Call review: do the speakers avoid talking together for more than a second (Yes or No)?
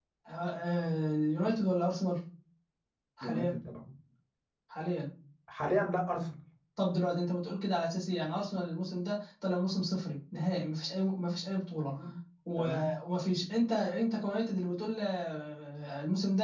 Yes